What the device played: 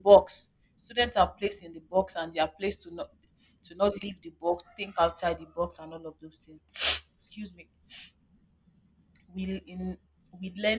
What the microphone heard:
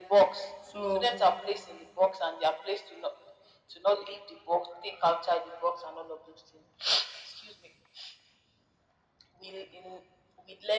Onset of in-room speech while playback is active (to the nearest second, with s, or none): 1 s